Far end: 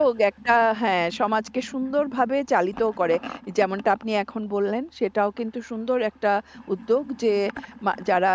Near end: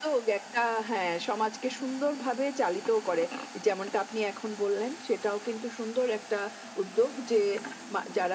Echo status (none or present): present